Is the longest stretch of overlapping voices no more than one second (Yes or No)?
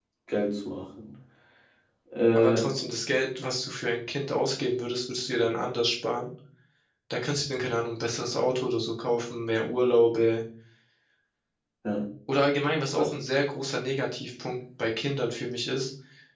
Yes